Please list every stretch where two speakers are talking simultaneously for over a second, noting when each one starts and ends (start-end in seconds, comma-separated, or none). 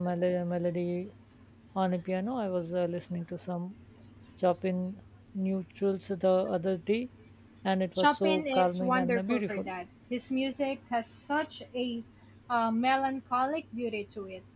8.0-9.7